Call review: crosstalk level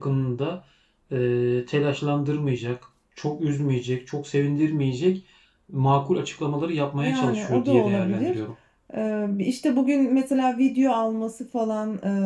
present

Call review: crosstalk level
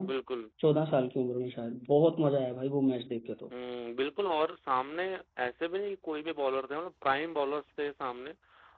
none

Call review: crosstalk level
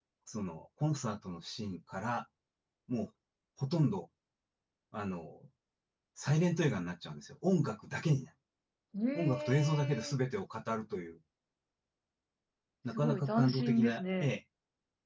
present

